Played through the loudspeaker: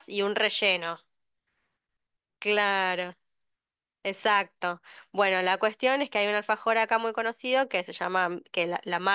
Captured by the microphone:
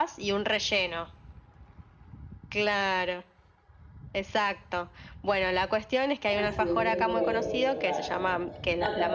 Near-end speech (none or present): present